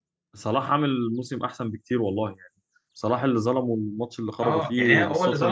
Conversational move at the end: taking over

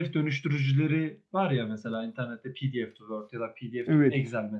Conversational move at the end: listening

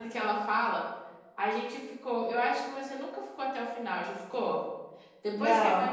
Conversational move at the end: listening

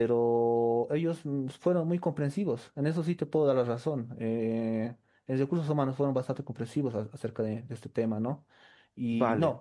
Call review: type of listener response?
listening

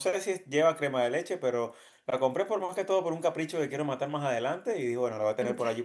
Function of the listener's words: listening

